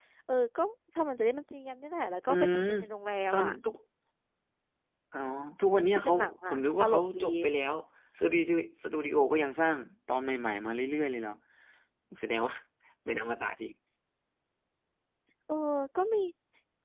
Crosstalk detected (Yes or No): Yes